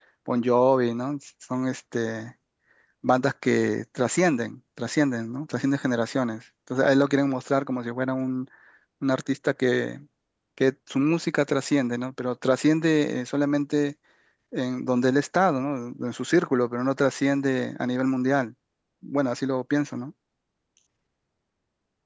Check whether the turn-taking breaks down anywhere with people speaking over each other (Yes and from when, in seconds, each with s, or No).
No